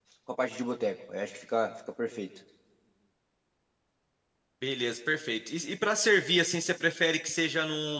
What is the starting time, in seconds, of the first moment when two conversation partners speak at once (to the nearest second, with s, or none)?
none